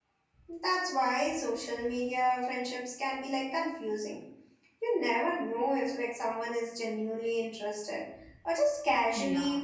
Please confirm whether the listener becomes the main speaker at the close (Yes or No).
Yes